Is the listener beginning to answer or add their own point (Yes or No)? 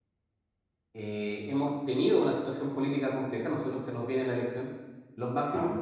No